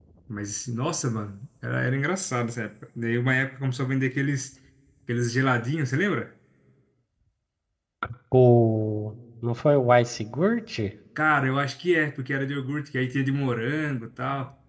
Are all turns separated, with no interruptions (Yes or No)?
Yes